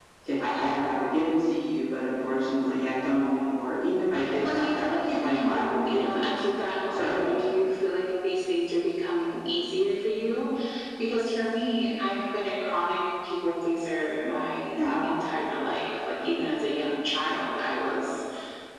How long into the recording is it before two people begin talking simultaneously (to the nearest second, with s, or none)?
4 s